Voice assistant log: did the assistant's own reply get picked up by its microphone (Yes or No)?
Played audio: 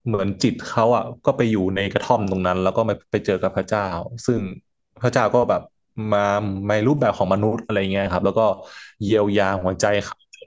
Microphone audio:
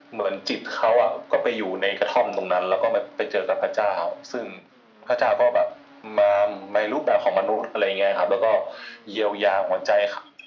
Yes